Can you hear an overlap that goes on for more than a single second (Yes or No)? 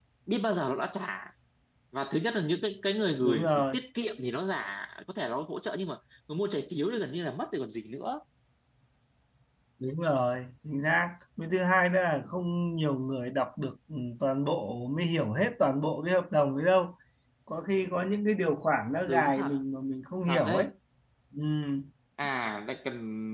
No